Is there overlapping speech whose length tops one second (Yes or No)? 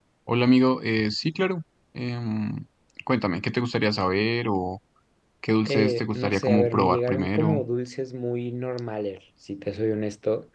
Yes